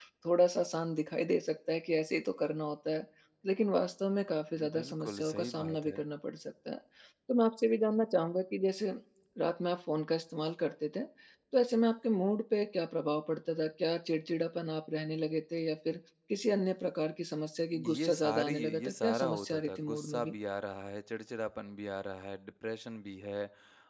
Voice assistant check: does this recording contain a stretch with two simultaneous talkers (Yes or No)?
Yes